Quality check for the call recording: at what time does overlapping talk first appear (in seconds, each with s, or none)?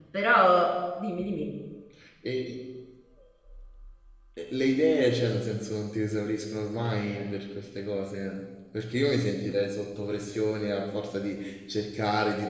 none